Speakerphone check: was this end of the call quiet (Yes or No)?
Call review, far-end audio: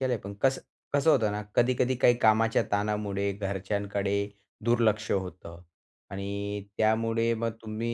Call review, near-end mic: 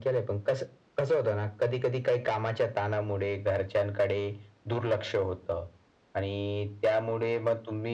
Yes